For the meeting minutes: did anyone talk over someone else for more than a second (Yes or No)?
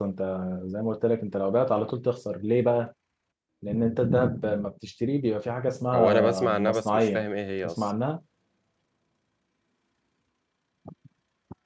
Yes